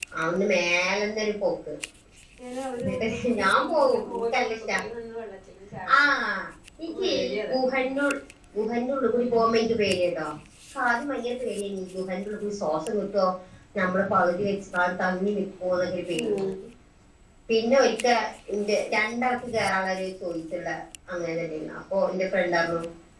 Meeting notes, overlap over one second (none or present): present